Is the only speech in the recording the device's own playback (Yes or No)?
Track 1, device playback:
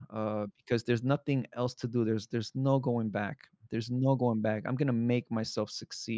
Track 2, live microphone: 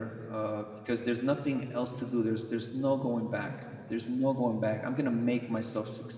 Yes